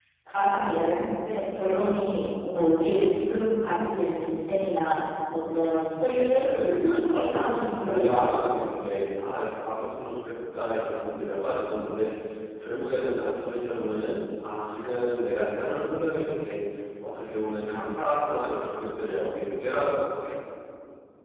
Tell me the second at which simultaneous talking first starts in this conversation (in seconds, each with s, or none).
6.4 s